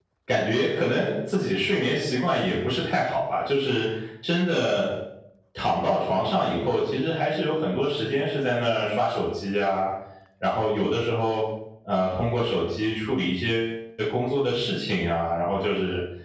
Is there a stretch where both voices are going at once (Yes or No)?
No